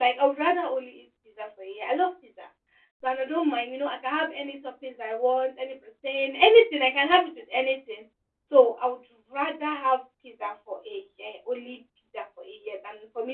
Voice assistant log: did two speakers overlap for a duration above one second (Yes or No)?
No